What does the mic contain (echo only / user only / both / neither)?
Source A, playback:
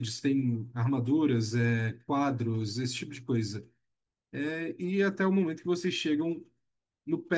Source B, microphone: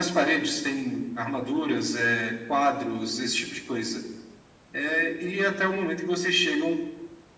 echo only